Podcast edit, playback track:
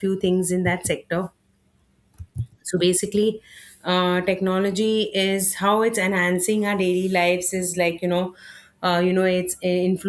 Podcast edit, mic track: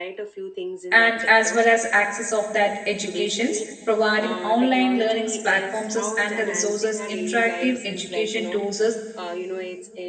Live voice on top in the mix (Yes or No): Yes